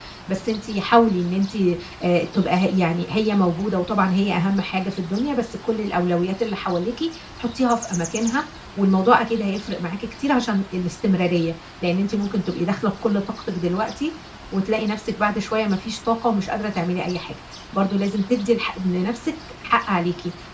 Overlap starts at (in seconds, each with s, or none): none